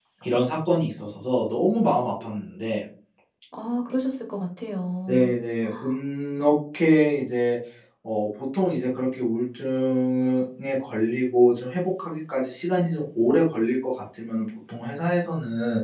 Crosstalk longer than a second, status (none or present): none